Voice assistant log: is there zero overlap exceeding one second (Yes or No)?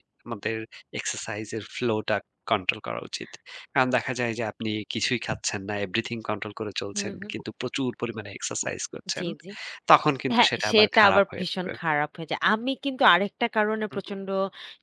No